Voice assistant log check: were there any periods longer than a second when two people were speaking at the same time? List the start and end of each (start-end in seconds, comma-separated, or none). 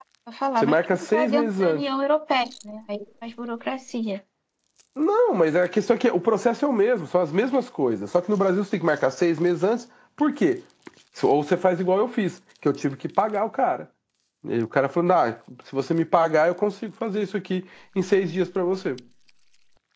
0.6-1.8